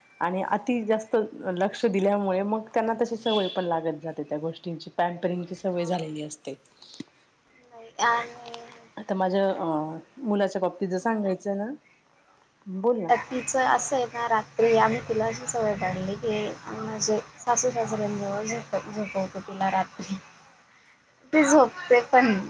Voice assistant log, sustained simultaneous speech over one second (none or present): none